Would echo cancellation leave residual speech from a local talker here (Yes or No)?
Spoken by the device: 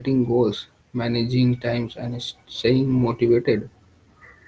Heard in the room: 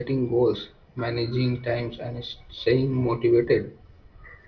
No